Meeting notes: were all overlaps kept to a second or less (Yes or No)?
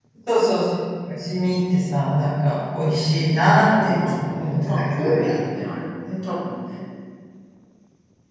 No